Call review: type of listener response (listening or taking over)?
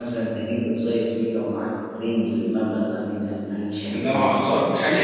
taking over